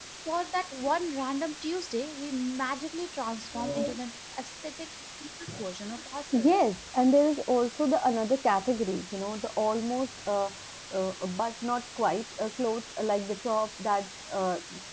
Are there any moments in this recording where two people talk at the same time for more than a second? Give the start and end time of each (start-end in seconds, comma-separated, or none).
none